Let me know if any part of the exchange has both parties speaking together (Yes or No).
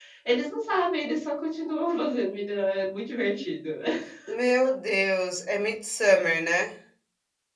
No